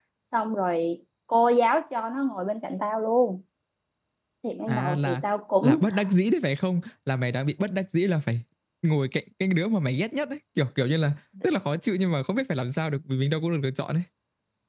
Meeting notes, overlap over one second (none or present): none